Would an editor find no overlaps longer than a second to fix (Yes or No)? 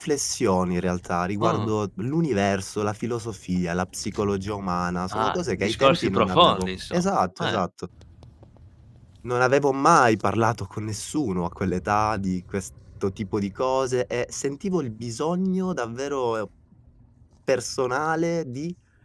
No